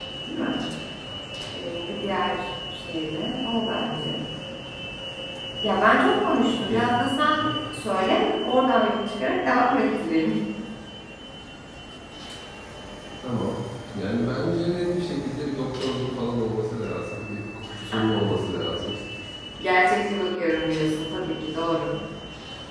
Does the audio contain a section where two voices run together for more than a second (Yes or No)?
No